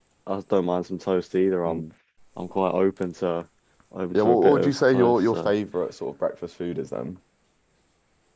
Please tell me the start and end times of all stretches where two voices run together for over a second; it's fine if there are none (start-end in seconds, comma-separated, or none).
4.1-5.5